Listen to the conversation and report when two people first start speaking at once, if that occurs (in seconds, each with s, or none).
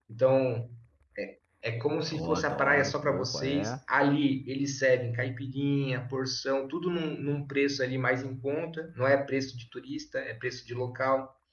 2.1 s